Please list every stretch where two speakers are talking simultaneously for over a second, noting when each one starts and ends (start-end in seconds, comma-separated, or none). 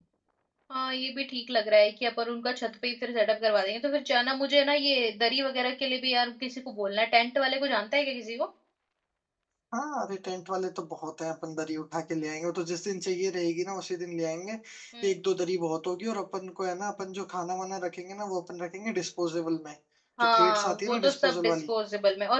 20.3-21.7